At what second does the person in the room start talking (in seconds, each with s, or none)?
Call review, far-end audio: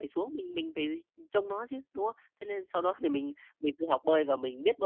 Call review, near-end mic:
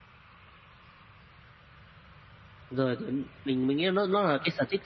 2.7 s